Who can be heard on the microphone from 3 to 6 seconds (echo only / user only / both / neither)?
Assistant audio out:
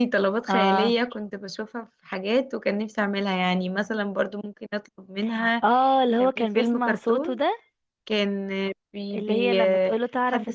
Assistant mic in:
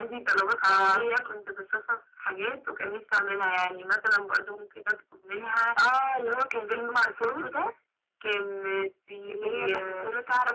echo only